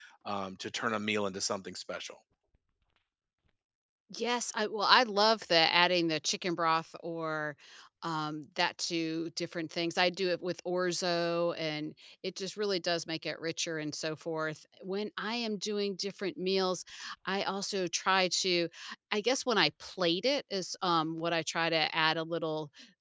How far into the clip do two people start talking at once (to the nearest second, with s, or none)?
none